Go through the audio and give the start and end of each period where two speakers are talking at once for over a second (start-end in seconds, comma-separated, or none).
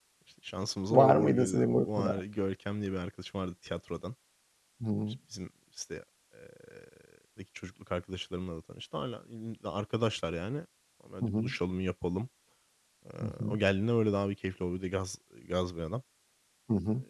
0.9-2.2